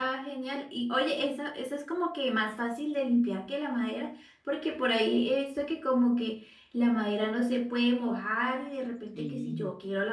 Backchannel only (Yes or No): Yes